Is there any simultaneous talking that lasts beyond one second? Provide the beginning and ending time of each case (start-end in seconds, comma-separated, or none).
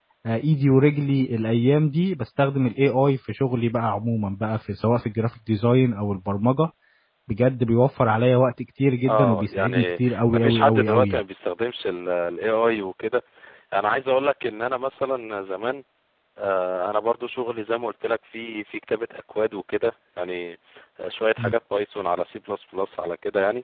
9.1-11.2